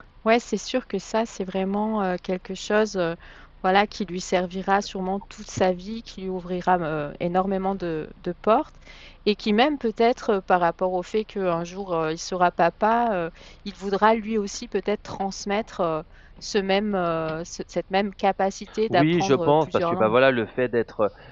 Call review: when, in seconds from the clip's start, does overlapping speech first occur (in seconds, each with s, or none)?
18.9 s